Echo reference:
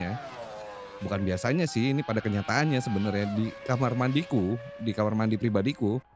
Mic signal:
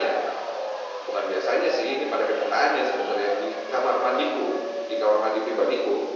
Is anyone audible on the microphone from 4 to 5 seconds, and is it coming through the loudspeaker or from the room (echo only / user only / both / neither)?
echo only